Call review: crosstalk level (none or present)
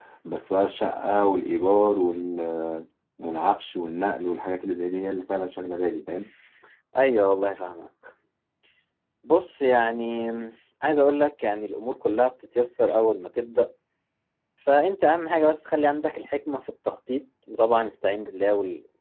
none